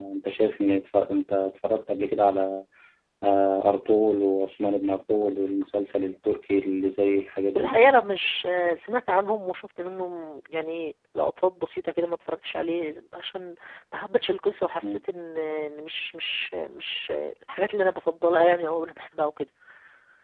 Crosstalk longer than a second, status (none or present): none